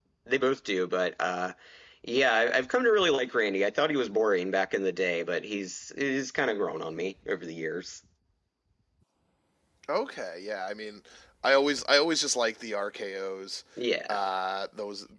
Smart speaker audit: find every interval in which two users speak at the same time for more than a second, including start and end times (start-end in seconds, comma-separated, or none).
none